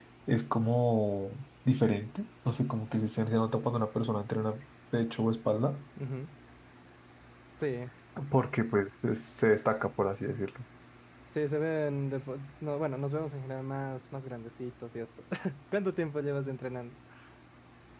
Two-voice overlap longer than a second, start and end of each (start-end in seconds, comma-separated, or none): none